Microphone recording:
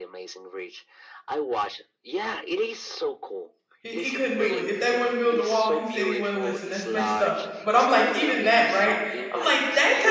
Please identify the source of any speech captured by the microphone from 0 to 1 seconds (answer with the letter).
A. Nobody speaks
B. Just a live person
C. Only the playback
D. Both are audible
C